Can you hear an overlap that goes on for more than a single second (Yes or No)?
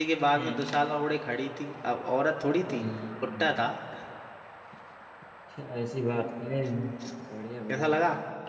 No